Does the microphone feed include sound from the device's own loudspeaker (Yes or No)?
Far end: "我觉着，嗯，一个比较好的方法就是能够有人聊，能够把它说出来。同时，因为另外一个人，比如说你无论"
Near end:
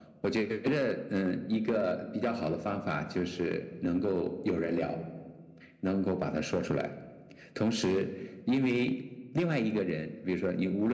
Yes